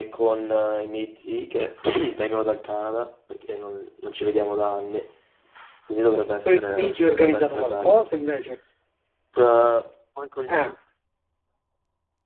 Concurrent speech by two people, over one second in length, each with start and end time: 6.5-8.1

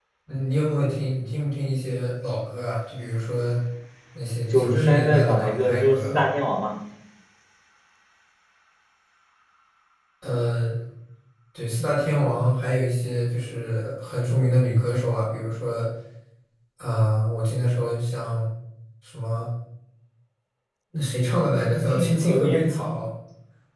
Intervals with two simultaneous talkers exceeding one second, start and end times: 4.5-6.2, 21.7-22.9

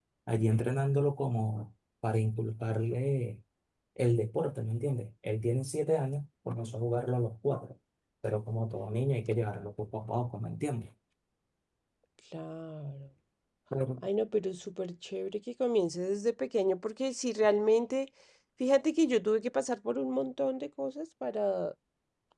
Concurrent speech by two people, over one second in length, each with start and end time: none

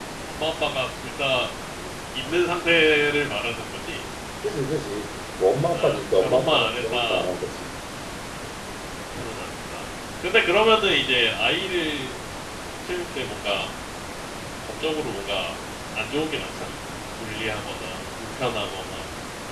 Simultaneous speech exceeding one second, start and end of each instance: 5.7-7.2

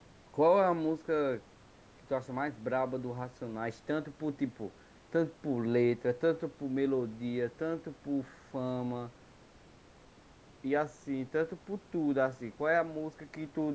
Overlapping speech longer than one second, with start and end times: none

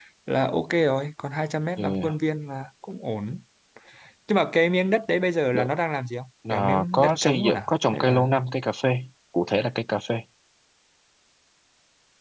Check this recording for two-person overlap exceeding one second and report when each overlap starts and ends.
6.5-8.2

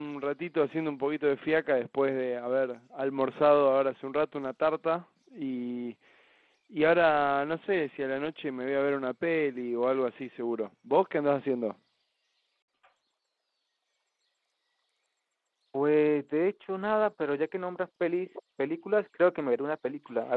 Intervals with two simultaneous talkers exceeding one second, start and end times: none

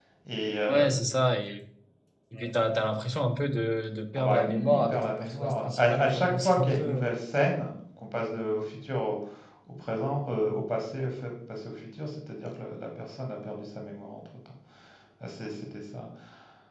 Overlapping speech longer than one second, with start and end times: 4.2-7.0

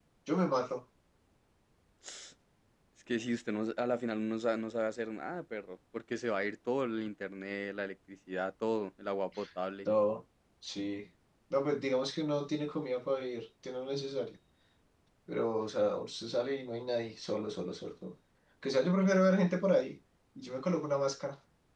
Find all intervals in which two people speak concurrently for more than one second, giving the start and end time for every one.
none

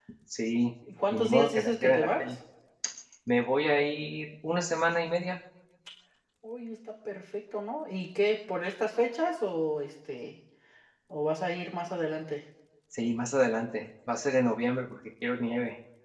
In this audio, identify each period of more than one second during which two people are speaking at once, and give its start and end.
1.1-2.4

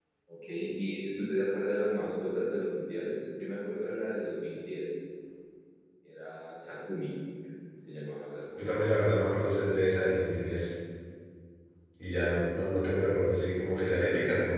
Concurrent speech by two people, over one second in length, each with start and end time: none

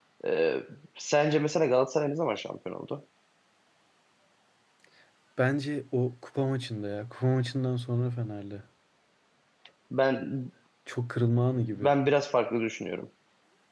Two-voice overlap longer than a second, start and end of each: none

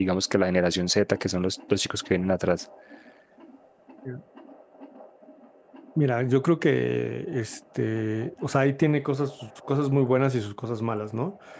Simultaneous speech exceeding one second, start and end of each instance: none

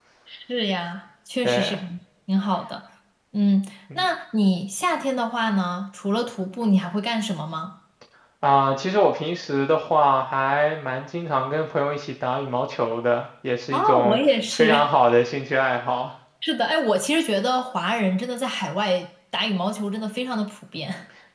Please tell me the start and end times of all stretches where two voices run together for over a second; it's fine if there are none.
13.7-14.9

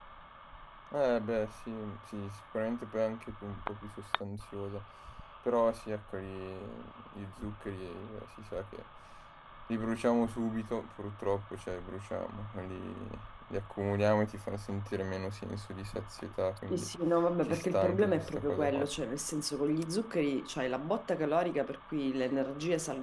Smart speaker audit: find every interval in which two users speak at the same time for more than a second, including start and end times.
17.4-18.9

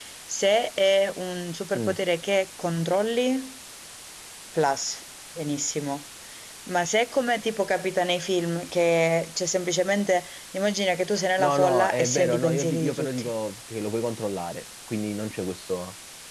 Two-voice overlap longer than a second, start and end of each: 11.4-13.3

